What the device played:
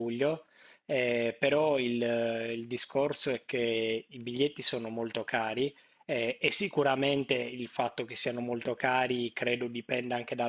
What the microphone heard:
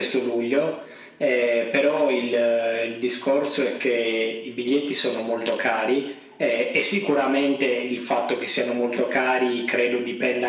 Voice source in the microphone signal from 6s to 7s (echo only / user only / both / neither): echo only